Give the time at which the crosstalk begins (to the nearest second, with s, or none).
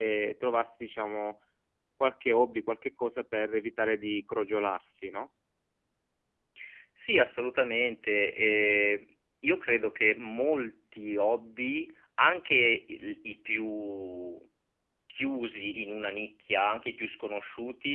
none